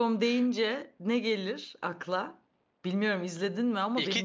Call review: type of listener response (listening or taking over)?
taking over